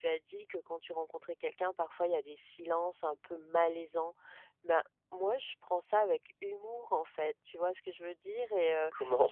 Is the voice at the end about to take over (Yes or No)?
No